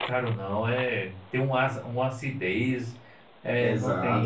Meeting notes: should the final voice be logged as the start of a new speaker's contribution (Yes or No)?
Yes